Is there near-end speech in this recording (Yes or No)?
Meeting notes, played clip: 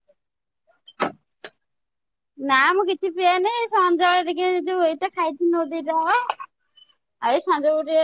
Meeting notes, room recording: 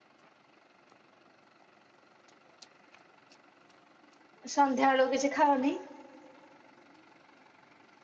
Yes